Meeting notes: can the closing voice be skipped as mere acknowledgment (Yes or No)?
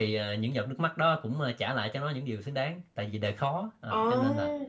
Yes